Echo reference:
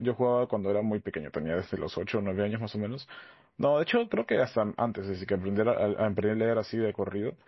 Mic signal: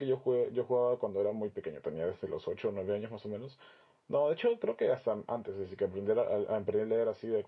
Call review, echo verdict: present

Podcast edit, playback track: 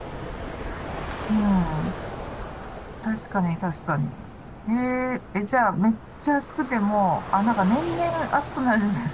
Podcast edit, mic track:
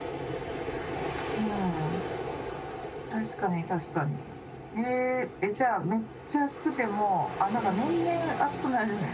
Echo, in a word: present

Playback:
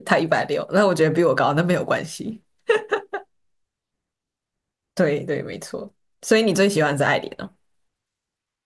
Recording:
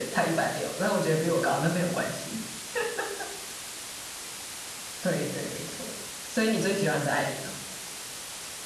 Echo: present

